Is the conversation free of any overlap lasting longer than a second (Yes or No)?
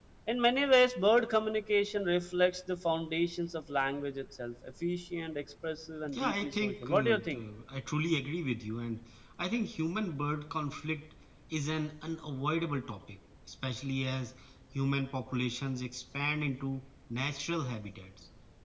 No